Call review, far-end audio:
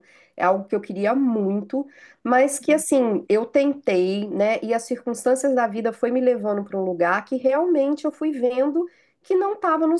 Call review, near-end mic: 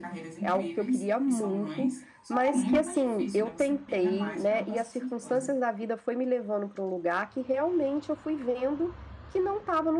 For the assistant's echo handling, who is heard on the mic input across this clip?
both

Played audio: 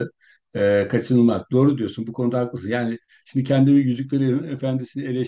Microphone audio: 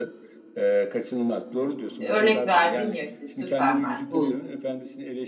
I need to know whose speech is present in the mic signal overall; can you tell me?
both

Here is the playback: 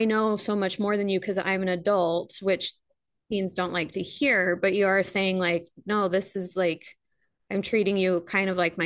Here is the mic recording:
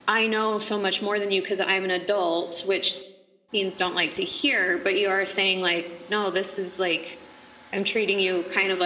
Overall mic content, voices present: echo only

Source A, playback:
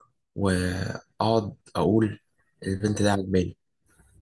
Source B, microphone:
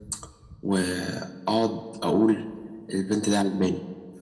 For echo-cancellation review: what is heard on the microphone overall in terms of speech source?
echo only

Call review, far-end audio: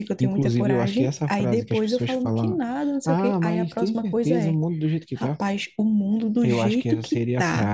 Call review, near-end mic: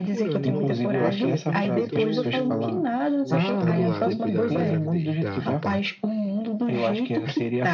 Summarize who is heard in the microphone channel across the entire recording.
both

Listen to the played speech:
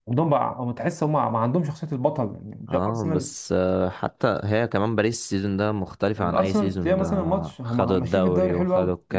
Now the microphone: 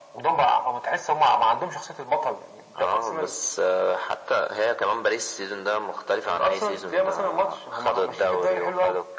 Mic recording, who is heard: echo only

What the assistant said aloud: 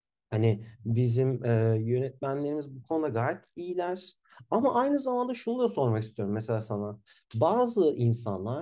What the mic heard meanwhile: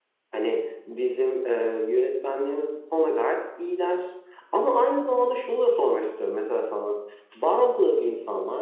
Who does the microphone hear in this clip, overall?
echo only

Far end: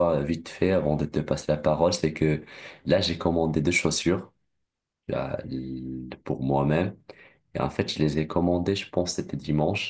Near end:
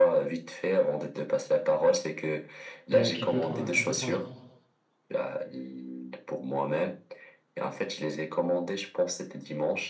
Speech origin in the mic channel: both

